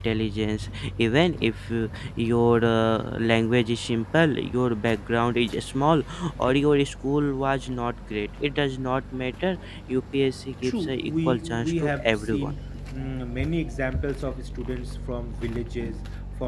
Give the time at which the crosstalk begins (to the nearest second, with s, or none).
11 s